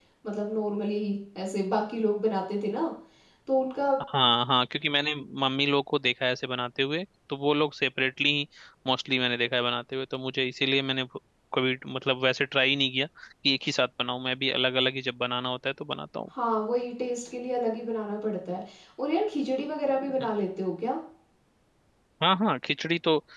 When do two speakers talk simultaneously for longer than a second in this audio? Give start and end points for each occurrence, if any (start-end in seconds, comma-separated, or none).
none